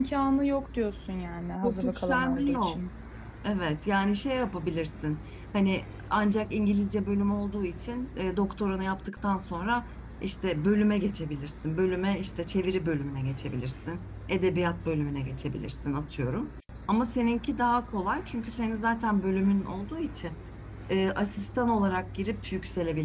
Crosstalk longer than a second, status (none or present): present